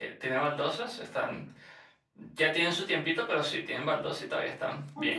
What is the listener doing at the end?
taking over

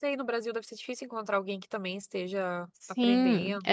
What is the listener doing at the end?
taking over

